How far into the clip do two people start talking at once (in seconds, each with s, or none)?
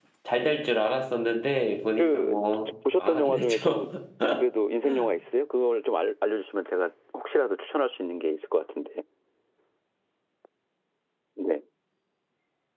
2.0 s